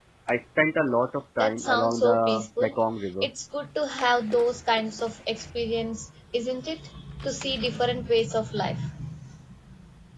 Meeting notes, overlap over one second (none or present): present